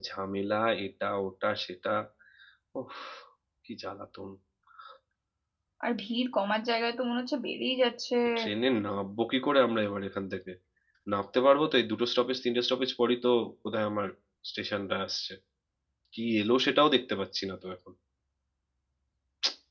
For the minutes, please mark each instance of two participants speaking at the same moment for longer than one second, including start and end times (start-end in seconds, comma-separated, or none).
none